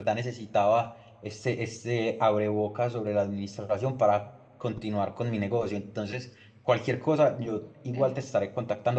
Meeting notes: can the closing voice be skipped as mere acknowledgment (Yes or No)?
Yes